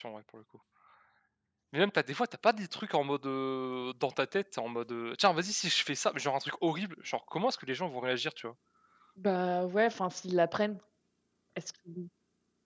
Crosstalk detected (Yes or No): No